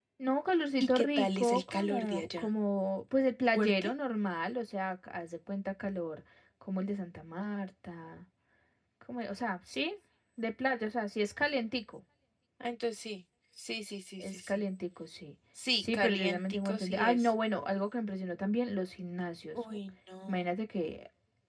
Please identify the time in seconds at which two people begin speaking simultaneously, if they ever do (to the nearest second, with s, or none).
1 s